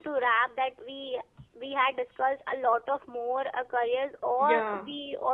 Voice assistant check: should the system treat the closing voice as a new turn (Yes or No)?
No